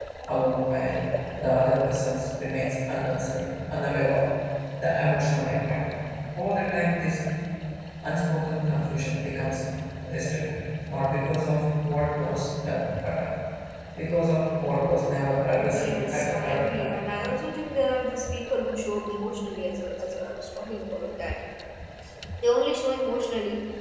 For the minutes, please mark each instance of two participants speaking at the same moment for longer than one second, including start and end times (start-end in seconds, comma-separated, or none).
15.6-17.0